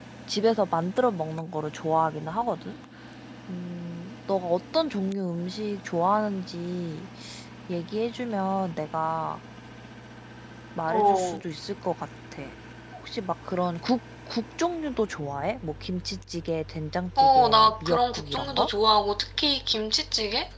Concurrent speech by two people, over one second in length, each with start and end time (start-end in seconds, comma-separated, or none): 17.2-18.7